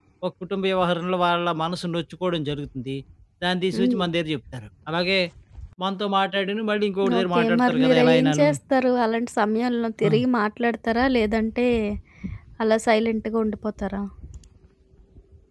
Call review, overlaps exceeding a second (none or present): present